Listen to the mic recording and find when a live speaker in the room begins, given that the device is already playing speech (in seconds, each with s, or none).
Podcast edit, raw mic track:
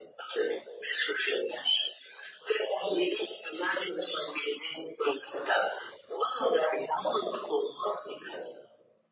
none